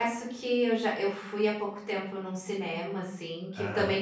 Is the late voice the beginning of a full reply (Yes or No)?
No